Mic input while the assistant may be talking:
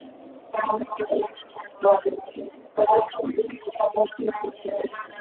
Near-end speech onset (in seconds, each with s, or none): none